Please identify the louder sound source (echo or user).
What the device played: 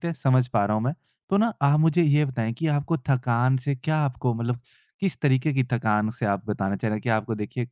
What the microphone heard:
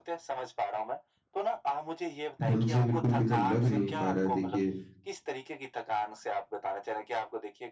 user